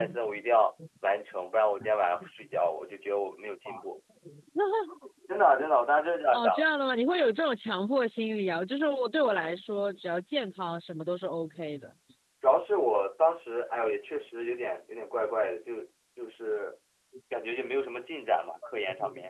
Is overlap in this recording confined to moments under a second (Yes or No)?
Yes